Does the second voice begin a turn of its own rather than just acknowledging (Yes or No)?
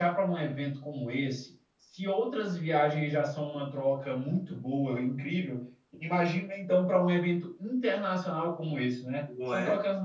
No